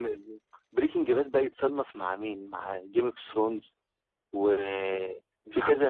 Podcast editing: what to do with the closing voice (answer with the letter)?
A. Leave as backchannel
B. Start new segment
A